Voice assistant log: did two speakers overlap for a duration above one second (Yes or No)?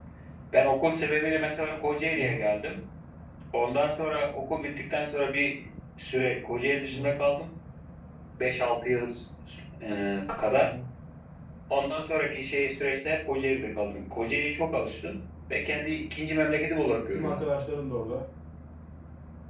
No